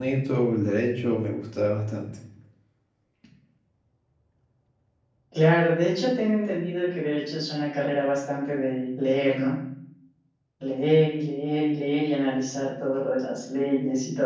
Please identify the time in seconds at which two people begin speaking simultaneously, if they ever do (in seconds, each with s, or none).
none